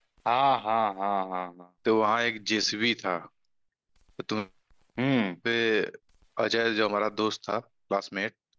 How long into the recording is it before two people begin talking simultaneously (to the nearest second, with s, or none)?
none